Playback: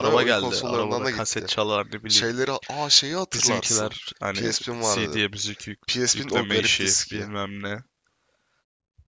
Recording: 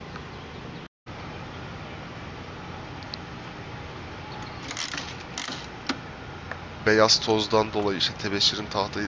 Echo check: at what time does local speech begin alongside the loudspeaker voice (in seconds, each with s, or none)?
6.8 s